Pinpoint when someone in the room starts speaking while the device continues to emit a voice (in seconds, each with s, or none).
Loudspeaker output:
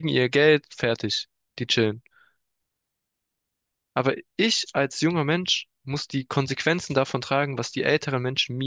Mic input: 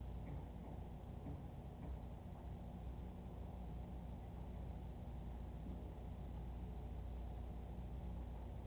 none